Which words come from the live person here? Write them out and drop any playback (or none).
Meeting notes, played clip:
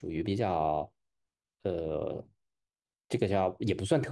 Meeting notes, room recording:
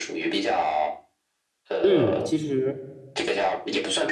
嗯，其实，